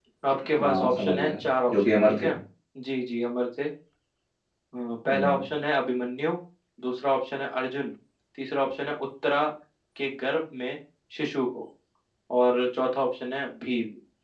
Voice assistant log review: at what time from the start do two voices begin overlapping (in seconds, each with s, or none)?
0.6 s